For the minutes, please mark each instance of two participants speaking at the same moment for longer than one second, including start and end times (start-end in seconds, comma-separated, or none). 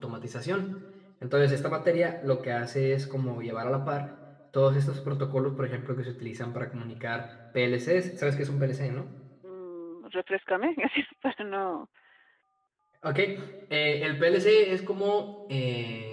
none